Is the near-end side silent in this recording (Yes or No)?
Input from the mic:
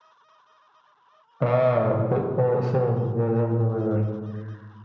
Yes